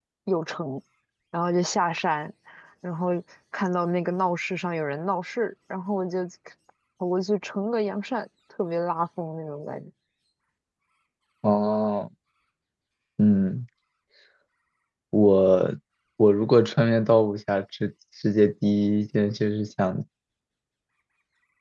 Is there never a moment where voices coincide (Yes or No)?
Yes